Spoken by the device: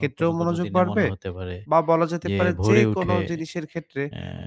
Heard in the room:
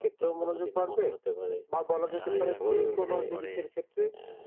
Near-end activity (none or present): present